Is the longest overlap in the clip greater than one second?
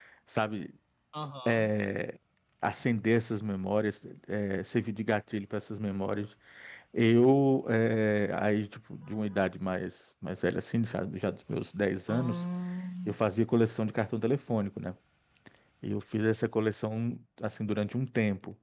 No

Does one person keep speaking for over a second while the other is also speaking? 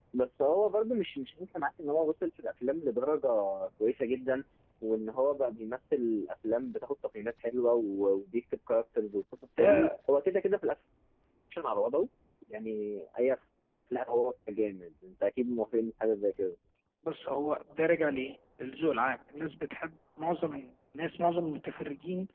No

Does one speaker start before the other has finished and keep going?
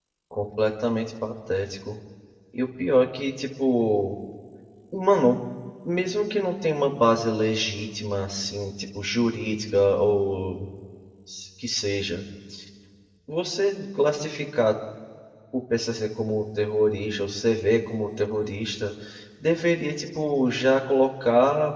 No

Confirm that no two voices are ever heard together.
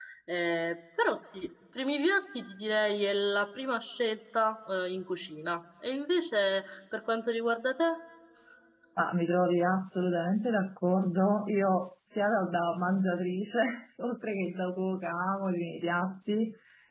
Yes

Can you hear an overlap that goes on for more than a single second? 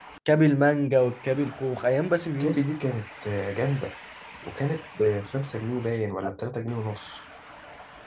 No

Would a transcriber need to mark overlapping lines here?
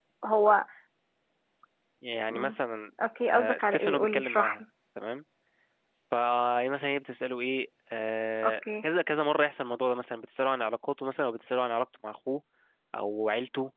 Yes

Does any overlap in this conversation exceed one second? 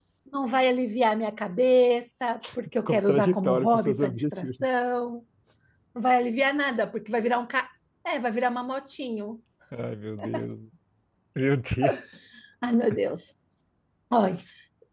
Yes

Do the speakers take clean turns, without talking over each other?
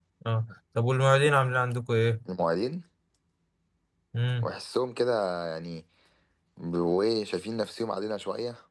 Yes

